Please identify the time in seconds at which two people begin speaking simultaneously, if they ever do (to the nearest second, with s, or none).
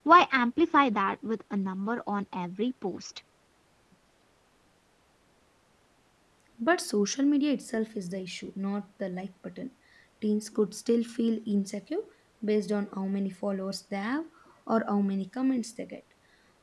none